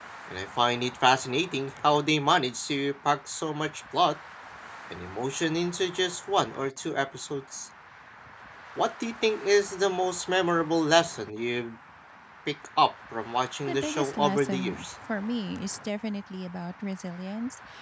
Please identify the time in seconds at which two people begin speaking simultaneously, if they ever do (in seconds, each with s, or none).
13.7 s